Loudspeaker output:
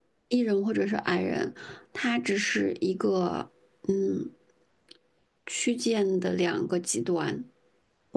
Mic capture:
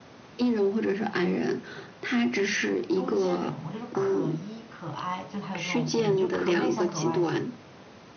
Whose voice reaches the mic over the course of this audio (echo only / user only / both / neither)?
both